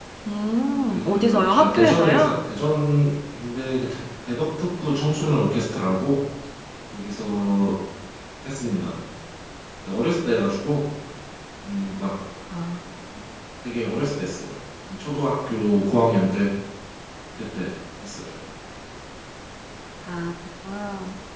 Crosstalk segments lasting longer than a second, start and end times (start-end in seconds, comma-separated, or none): 0.8-2.3